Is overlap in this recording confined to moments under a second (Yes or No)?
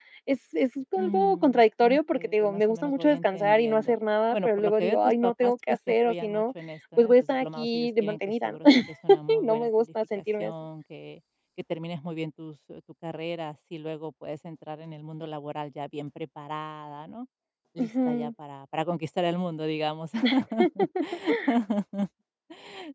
No